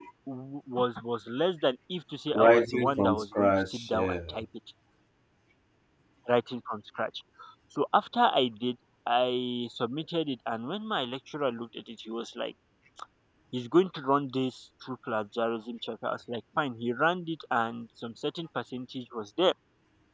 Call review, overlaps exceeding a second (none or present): present